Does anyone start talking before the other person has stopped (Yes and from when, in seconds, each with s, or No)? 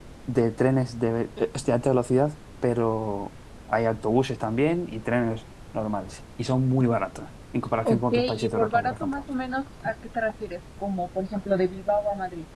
Yes, from 7.8 s